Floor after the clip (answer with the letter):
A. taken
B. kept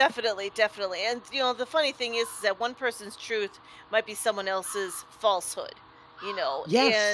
B